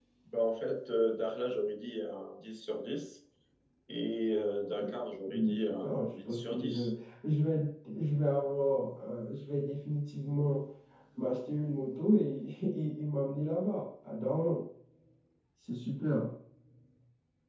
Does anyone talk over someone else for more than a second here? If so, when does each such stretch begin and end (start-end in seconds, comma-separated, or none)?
5.3-6.9